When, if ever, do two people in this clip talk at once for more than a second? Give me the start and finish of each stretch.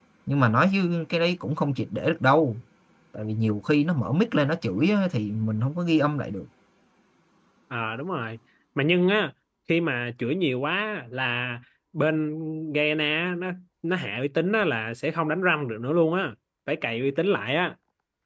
none

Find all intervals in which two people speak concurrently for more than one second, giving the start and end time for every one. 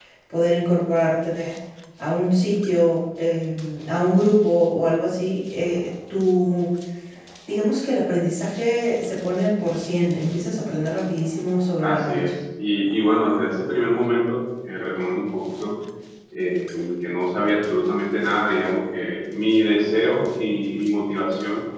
none

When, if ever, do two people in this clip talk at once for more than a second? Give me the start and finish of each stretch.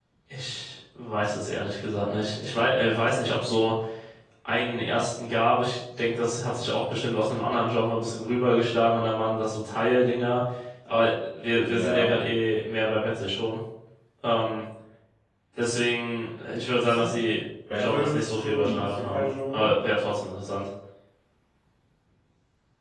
17.8-19.7

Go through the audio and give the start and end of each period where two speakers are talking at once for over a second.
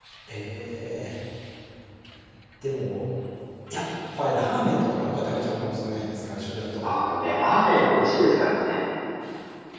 none

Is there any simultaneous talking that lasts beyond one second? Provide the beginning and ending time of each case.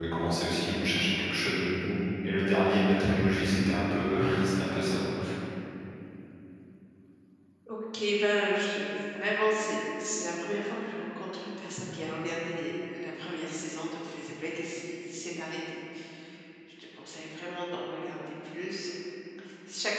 none

